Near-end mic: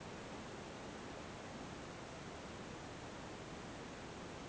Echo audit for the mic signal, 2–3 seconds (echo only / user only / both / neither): neither